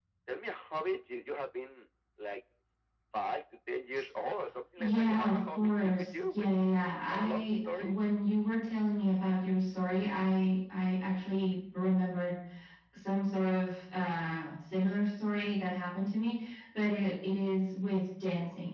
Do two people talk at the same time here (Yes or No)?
Yes